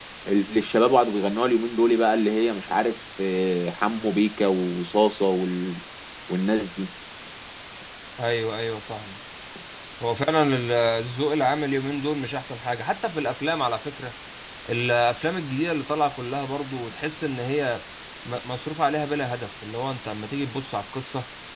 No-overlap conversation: Yes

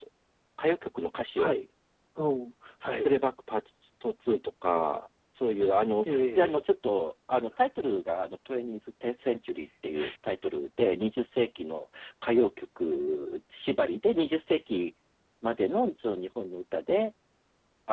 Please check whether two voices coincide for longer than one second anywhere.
No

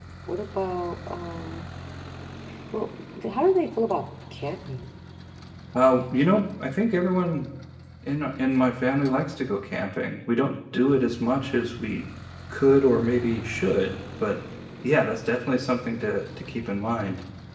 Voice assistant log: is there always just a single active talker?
Yes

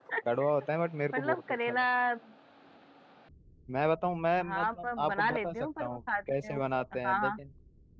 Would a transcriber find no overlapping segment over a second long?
No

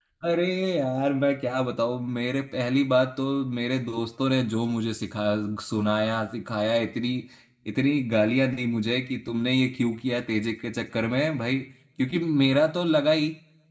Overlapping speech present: No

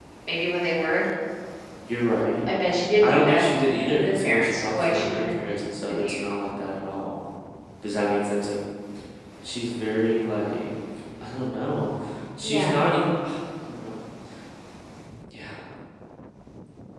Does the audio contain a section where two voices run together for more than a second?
Yes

